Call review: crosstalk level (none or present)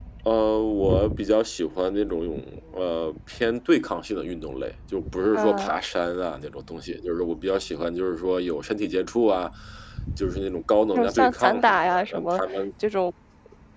present